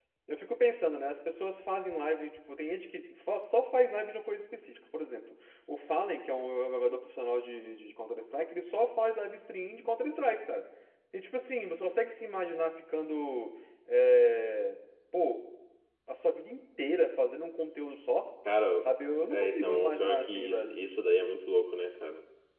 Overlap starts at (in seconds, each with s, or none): 19.3 s